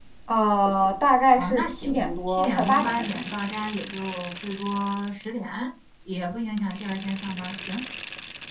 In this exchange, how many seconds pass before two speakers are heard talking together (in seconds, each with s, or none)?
1.4 s